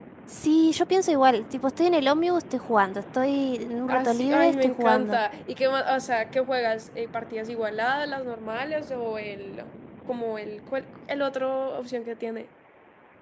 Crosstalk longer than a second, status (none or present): present